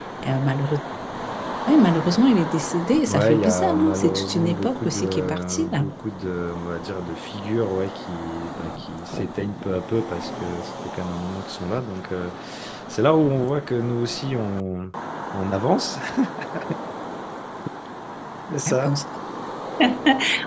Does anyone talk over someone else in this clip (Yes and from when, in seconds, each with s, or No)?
Yes, from 3.1 s